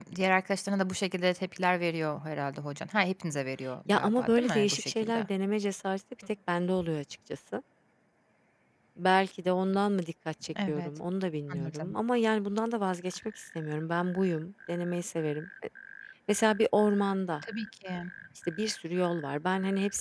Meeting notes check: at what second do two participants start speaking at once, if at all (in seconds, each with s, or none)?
3.9 s